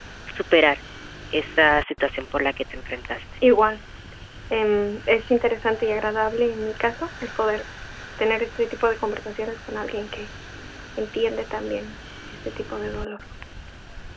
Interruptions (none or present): none